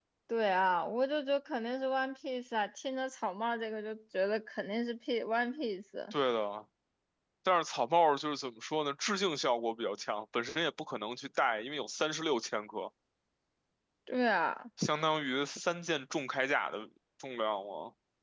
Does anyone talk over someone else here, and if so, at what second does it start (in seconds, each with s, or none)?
none